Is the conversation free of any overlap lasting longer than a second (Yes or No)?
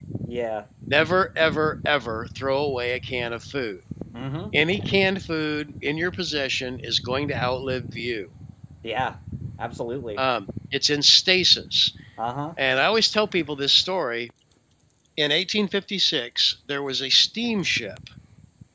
Yes